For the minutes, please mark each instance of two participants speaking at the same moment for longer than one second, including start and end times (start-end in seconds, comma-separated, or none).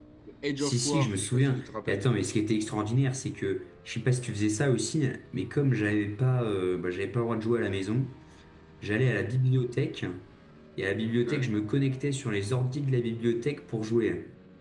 0.6-2.0